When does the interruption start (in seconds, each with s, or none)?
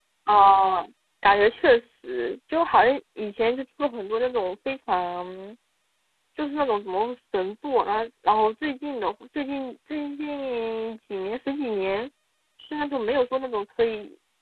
none